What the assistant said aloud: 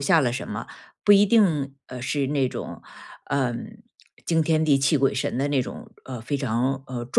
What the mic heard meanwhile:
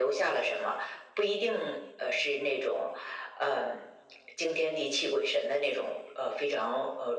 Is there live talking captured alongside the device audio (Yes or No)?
No